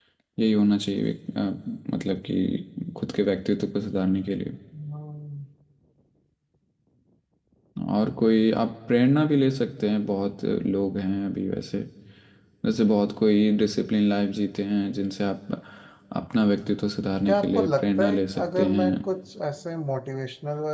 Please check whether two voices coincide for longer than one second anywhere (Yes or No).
Yes